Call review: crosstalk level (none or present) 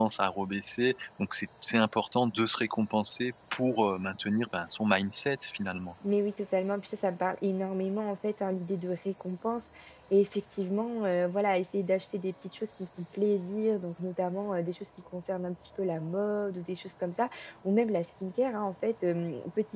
none